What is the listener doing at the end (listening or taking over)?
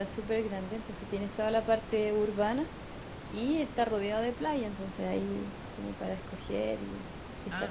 taking over